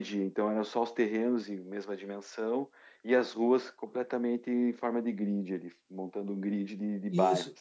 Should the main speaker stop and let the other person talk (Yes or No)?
Yes